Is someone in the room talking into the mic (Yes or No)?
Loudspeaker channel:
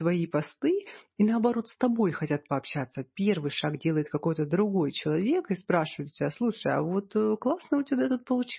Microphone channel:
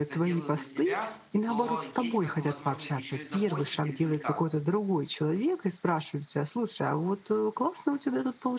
Yes